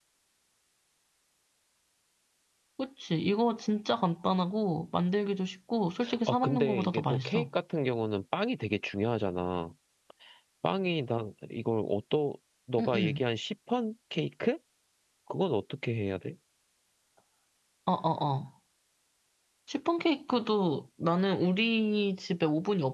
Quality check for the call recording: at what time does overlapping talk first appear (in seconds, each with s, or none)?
6.3 s